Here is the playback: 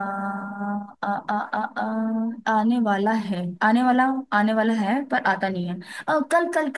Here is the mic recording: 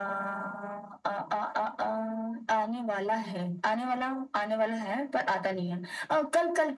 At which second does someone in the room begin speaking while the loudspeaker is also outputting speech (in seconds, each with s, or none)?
none